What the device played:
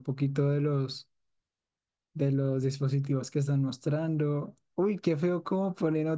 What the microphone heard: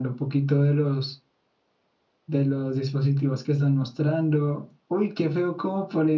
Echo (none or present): present